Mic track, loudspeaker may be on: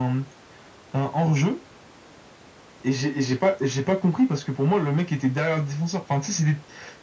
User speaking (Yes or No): No